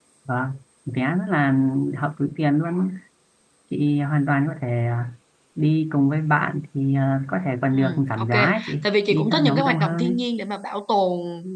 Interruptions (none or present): present